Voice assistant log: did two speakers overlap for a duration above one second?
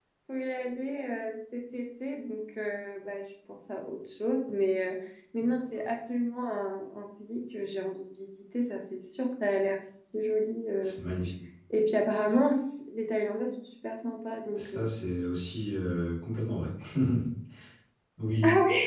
No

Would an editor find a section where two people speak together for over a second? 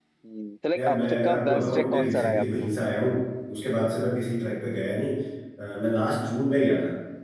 Yes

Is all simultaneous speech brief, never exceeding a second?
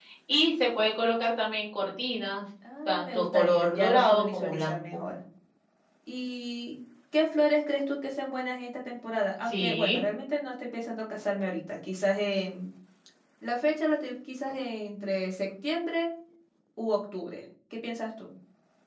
No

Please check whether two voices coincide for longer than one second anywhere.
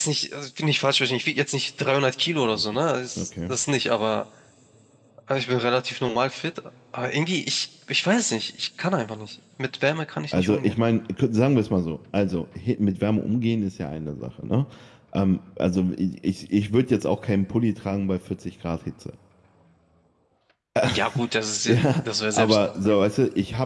Yes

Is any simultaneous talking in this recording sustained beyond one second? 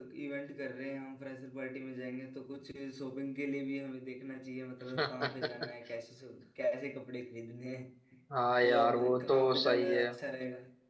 Yes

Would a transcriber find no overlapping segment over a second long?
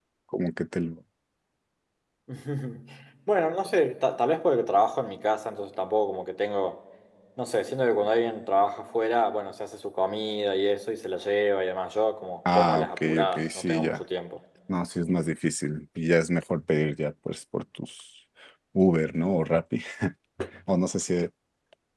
No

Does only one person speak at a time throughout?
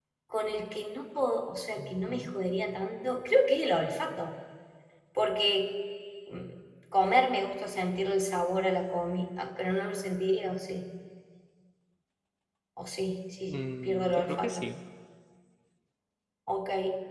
No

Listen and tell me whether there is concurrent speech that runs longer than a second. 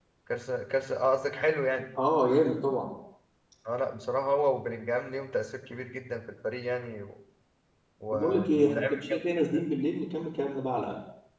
Yes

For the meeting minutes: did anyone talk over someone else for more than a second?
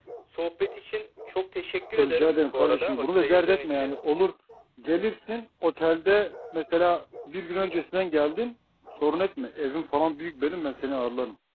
Yes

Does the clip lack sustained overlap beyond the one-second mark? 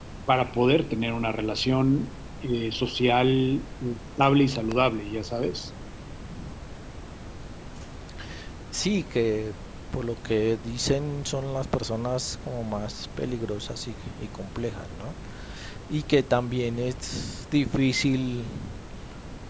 Yes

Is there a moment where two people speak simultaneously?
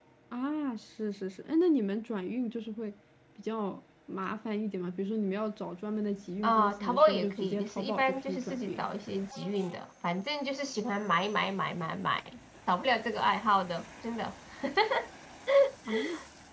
Yes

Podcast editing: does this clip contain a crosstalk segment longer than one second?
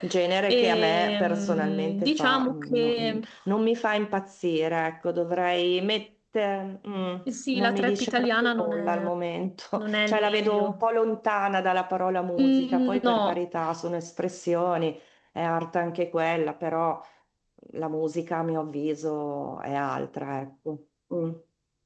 Yes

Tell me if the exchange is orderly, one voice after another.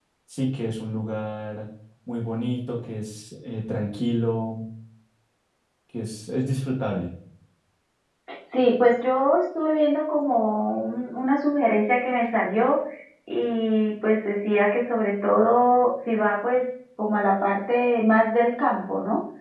Yes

